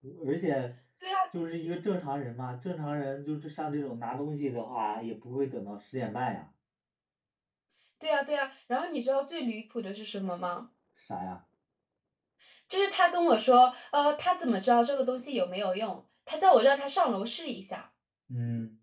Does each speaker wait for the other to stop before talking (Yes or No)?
Yes